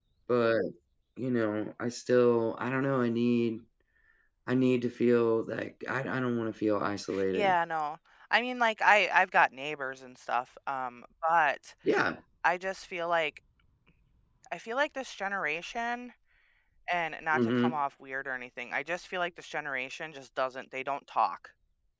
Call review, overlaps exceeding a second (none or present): none